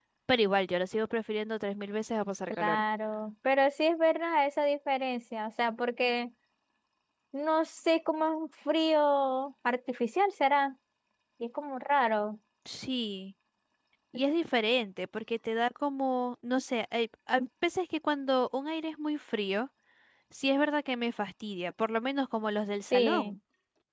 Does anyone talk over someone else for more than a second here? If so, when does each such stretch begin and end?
none

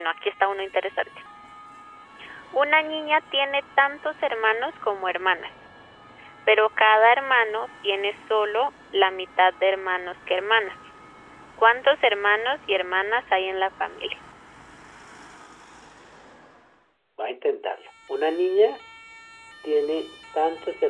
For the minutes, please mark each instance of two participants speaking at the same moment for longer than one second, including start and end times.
none

